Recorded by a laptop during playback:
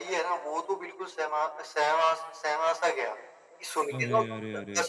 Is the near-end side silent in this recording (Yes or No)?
No